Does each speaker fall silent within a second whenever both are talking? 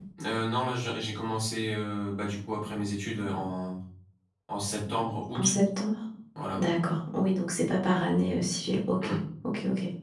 Yes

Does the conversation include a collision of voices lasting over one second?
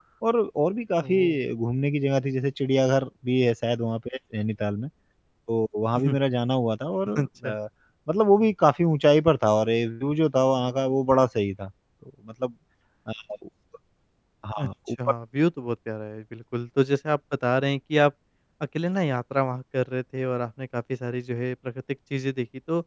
No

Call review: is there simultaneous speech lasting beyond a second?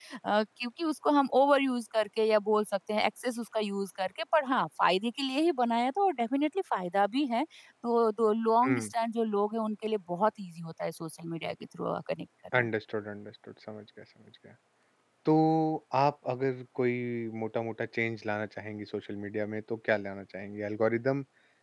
No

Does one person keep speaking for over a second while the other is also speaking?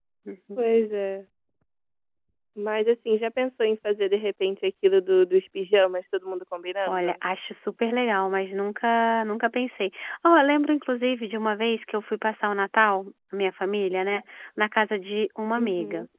No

